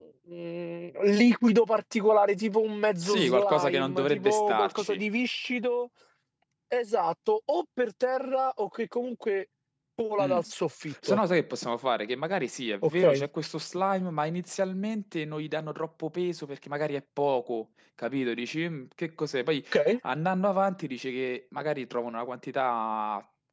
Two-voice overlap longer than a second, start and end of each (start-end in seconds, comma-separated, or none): 3.0-5.0